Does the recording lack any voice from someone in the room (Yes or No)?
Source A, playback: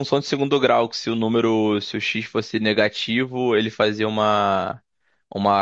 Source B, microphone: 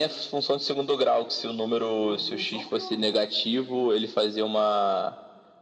No